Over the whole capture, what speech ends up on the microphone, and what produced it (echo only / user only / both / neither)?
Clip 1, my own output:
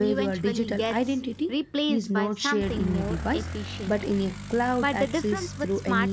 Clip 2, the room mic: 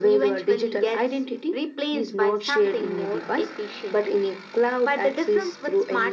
echo only